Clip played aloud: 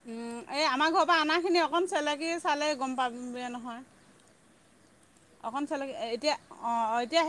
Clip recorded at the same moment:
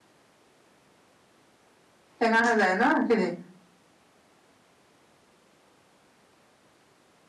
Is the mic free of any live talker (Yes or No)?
No